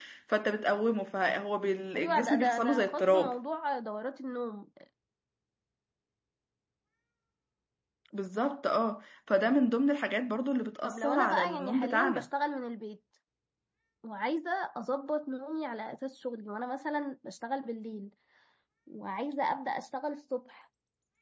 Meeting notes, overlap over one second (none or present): present